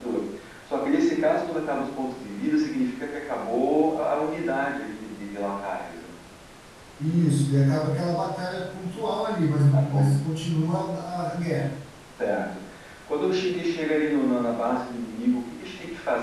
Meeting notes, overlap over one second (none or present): none